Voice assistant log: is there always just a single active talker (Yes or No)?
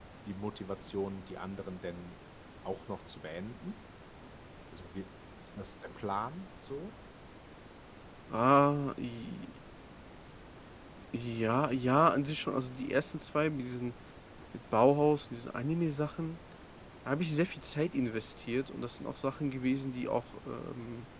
Yes